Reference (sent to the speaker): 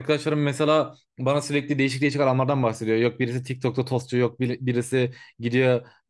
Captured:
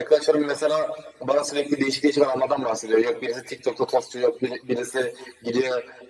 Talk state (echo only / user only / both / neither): echo only